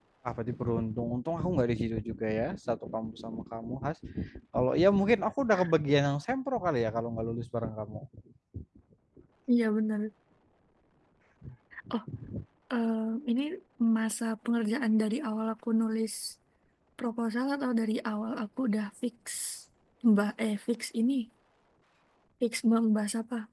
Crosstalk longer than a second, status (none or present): none